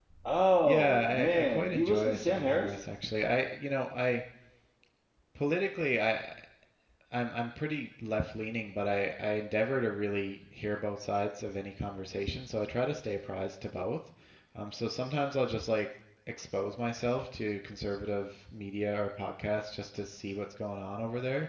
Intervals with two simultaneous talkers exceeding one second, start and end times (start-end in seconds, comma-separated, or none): 0.6-2.8